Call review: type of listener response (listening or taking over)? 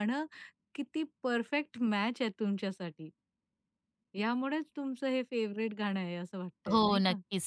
taking over